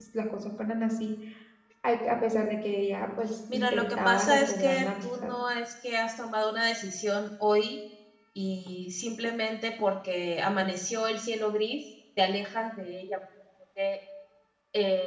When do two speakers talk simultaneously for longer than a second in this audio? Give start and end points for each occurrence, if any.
3.5-5.3

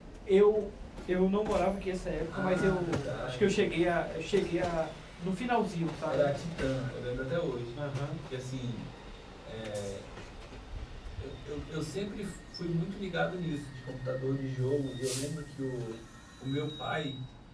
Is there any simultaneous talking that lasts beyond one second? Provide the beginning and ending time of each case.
2.3-3.7

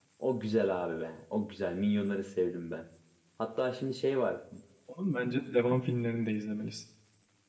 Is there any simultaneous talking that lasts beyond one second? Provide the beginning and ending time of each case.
none

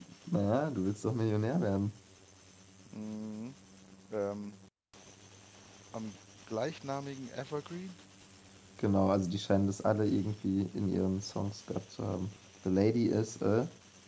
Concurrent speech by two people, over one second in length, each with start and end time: none

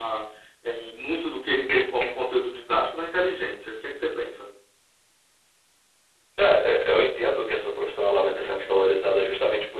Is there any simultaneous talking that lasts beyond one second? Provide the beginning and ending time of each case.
none

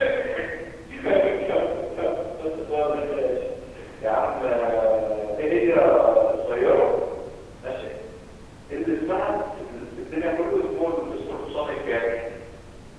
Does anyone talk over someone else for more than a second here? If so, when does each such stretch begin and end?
none

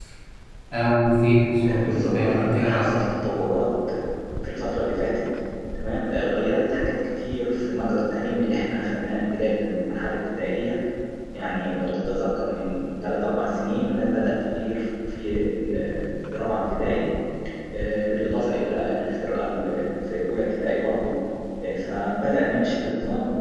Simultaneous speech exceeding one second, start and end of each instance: 1.8-3.1

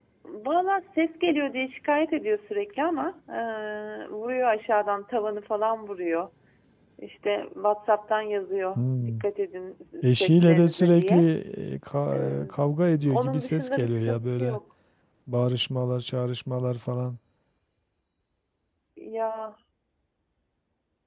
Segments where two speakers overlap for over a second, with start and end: 10.0-11.2, 13.1-14.6

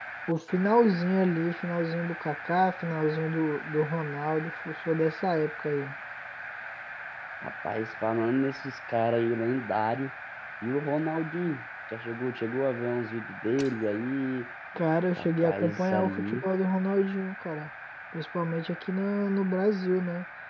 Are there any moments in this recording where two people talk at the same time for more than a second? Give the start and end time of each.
15.2-16.4

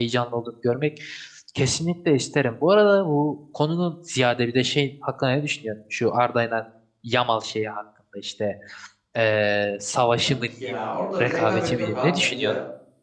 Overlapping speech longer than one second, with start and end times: 11.2-12.5

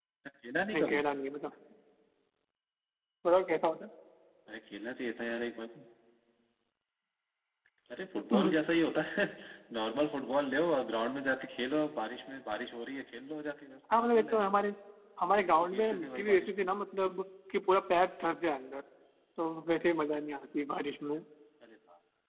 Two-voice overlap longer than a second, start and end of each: 15.3-16.7

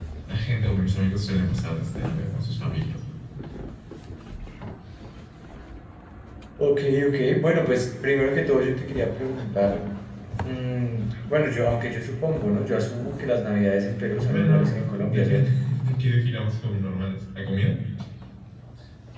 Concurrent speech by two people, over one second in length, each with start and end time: 14.2-15.5

